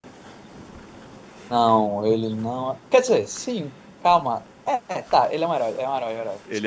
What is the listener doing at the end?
taking over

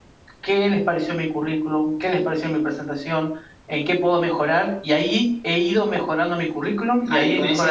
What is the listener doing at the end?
taking over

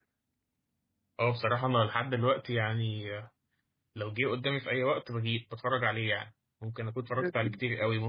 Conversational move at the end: listening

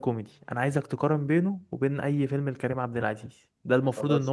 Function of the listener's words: listening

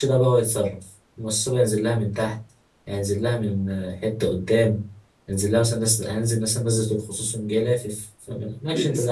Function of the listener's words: taking over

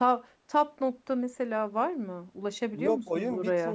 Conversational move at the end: taking over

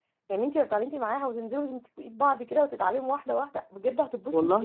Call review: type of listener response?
taking over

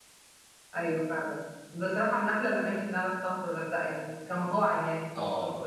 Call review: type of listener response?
taking over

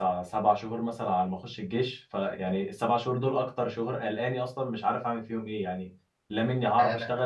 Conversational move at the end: listening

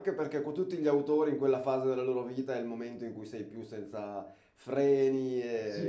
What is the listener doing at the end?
taking over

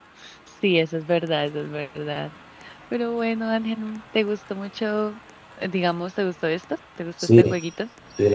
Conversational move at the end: taking over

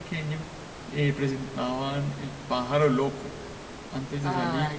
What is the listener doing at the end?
listening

